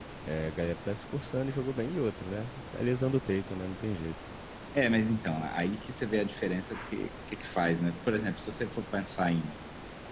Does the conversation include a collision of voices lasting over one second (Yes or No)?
No